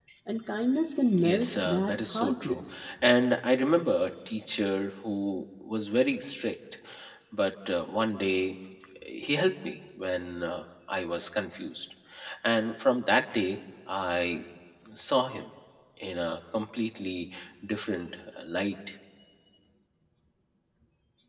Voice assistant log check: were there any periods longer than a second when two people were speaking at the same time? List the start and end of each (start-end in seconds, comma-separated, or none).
1.3-2.6